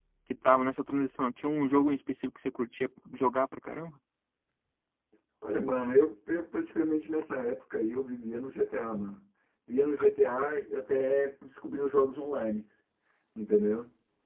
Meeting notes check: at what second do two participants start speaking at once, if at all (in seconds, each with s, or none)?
none